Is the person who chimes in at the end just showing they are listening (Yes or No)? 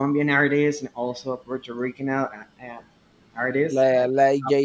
No